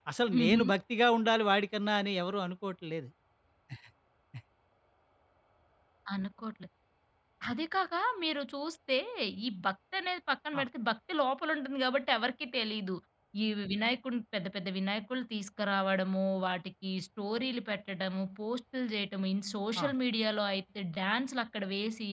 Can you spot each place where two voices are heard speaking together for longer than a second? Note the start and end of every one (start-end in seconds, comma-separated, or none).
none